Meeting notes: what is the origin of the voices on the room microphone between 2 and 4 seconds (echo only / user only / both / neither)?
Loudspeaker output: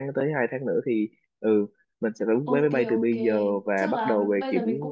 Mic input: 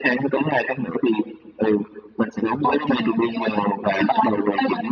echo only